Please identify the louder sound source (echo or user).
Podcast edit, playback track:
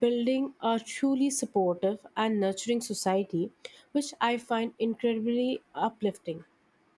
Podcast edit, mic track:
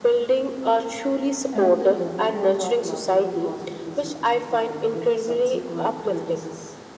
echo